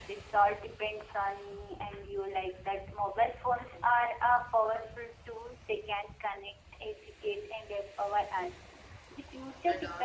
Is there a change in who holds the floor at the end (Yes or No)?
No